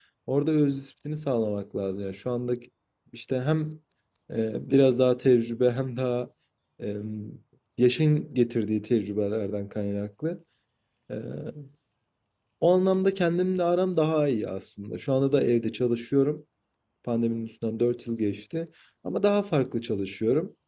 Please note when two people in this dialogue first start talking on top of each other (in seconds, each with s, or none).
none